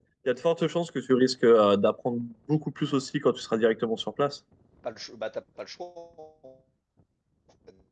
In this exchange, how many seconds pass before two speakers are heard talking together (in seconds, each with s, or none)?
none